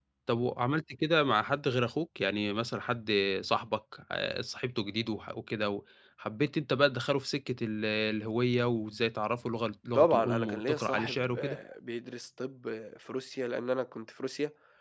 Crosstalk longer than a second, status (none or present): present